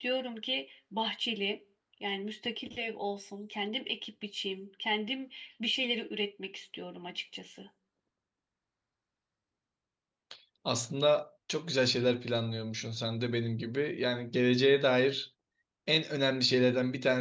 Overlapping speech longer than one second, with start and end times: none

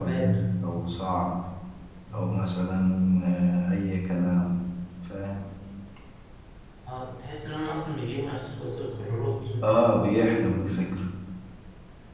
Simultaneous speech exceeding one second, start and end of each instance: none

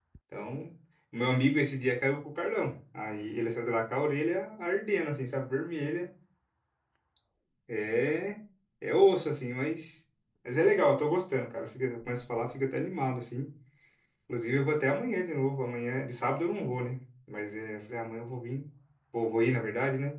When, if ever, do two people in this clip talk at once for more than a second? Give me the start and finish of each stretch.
none

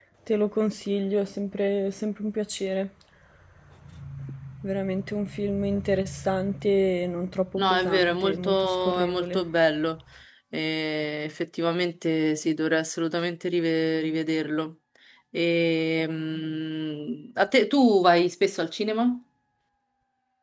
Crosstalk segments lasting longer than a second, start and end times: 7.6-9.4

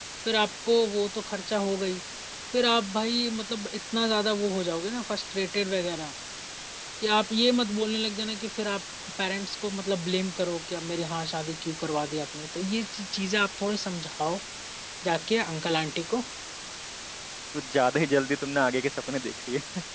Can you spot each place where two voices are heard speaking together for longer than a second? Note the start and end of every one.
none

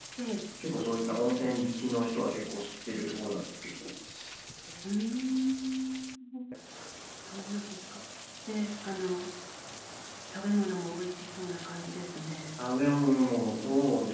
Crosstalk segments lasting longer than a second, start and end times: none

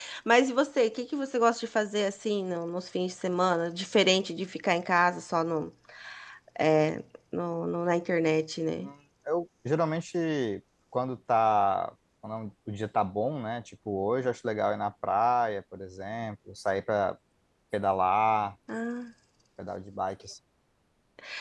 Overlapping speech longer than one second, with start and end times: none

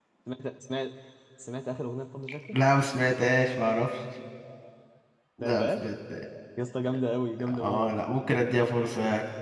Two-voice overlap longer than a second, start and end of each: none

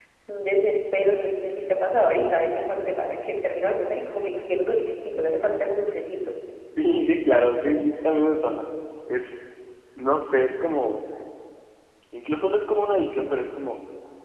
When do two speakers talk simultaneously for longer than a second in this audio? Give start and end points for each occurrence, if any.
none

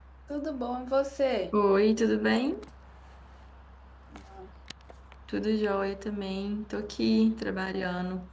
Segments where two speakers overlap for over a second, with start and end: none

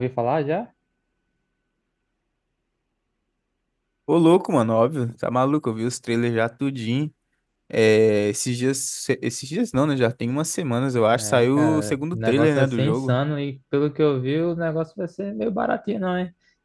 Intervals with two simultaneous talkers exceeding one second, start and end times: 11.1-13.2

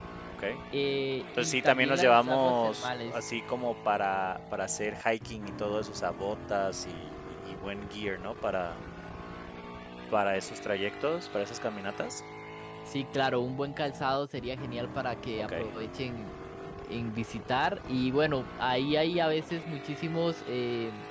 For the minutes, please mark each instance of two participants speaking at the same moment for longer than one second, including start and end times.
1.4-3.1

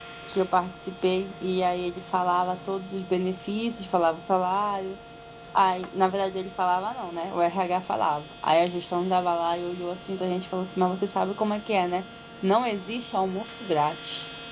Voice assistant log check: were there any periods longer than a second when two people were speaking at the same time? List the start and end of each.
none

